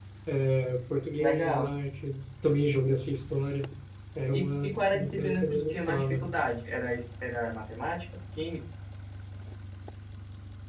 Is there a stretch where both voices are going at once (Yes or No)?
Yes